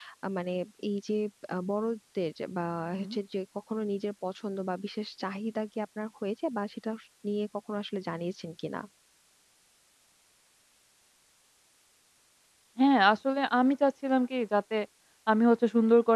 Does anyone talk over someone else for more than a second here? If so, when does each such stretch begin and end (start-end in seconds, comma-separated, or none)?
none